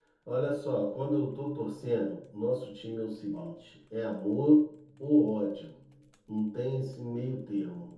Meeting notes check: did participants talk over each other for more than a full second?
No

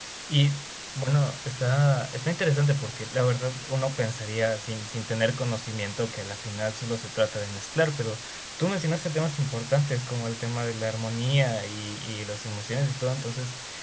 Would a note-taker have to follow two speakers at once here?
No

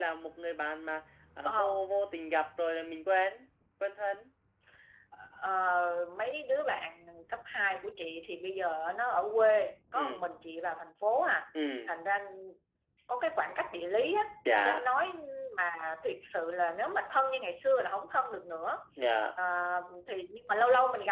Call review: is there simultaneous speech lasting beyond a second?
No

